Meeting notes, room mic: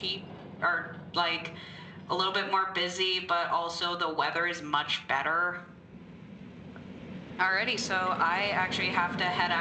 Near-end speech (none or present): none